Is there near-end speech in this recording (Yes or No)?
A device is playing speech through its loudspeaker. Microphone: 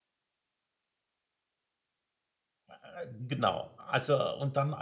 Yes